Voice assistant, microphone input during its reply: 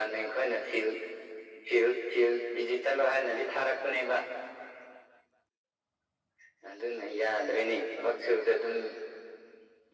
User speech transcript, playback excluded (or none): none